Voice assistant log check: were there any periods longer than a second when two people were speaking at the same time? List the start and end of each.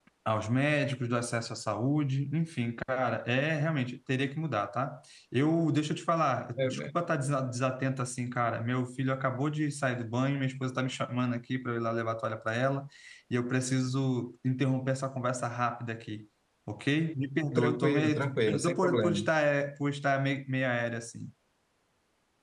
17.6-19.2

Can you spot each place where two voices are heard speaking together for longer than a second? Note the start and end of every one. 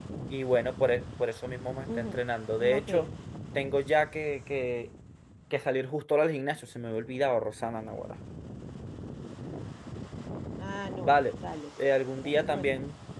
none

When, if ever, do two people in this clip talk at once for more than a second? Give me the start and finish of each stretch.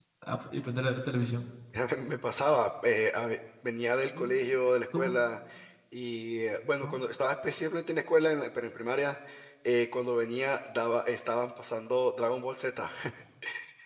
none

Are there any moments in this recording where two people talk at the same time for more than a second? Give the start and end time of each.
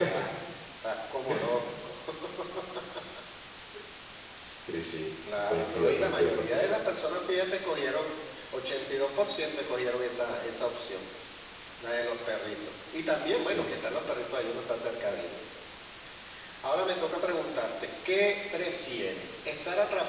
5.5-6.7

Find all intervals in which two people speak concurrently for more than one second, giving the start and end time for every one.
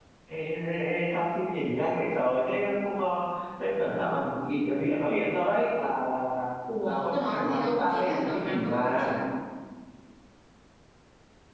6.8-9.1

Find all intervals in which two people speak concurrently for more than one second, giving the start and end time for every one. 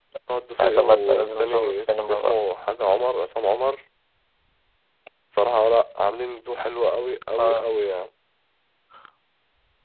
0.6-2.3

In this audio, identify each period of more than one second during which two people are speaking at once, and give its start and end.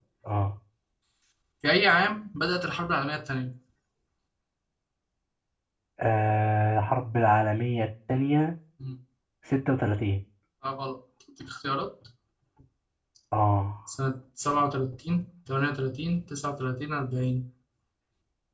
none

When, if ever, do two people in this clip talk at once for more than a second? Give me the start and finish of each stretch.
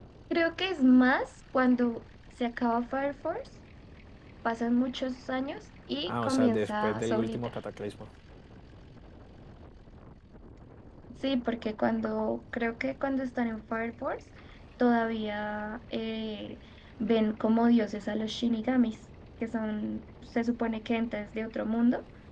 6.0-7.5

